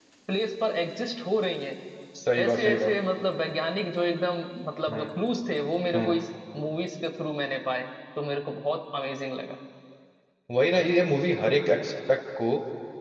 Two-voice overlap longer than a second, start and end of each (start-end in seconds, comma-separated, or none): none